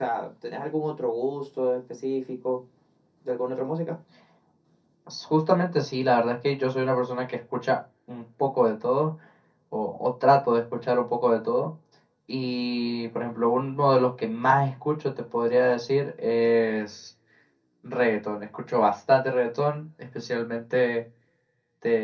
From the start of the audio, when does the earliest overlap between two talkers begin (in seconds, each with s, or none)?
none